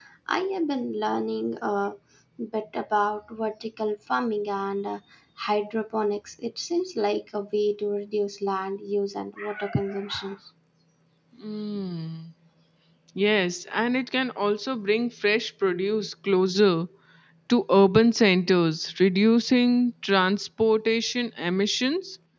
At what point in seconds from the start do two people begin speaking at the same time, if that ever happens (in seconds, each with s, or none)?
none